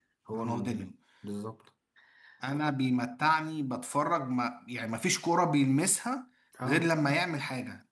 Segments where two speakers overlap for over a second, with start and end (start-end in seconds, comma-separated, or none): none